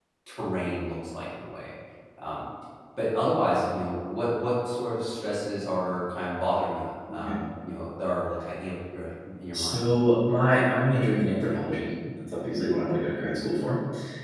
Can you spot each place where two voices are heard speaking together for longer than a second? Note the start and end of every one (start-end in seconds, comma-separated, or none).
none